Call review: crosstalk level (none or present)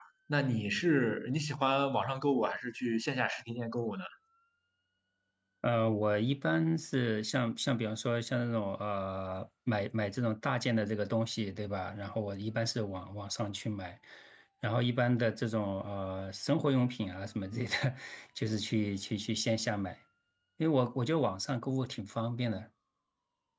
none